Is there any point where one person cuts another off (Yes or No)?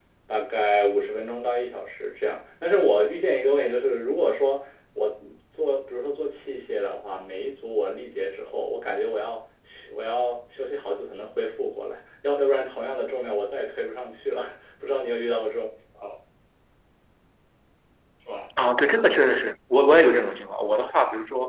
No